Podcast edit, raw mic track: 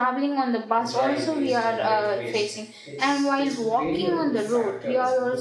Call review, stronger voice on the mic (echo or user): echo